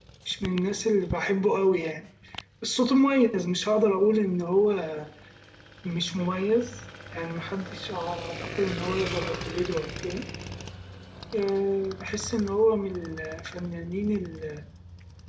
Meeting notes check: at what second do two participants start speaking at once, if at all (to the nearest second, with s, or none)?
none